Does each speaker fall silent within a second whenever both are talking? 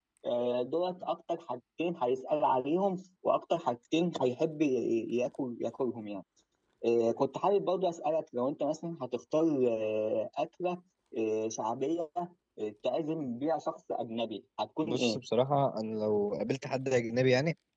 Yes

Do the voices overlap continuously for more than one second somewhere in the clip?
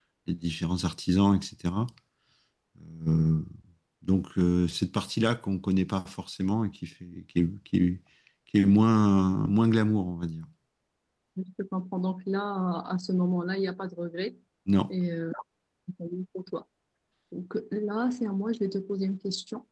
No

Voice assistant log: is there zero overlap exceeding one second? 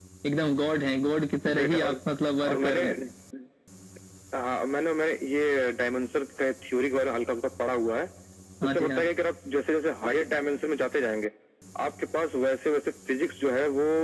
Yes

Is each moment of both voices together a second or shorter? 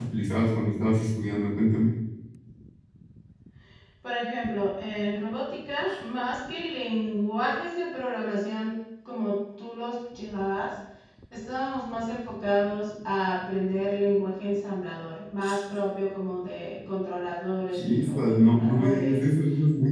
No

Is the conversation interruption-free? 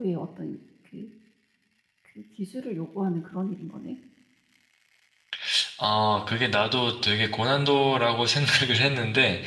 Yes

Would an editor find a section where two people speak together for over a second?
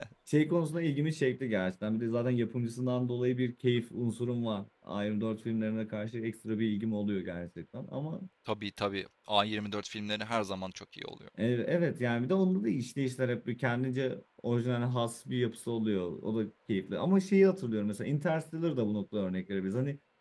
No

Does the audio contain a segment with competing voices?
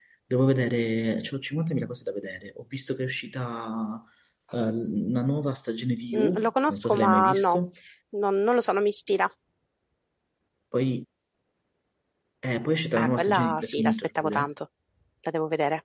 Yes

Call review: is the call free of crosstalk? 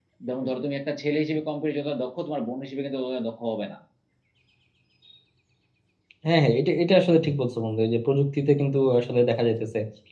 Yes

